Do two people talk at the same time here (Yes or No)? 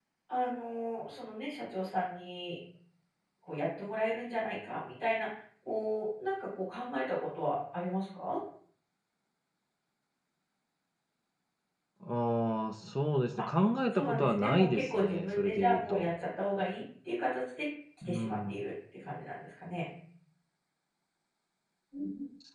Yes